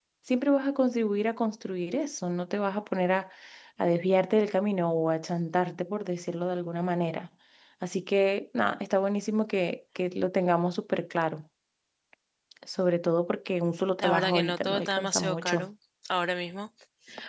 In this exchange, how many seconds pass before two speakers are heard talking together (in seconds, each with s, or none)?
14.0 s